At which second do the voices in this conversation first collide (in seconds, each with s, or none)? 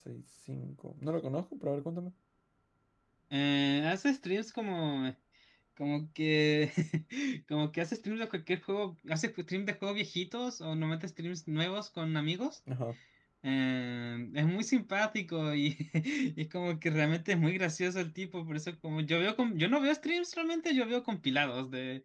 none